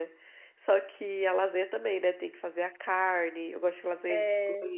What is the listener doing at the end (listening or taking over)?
listening